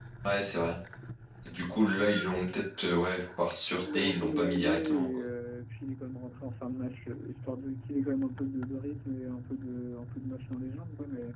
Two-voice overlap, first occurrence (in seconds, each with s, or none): 3.7 s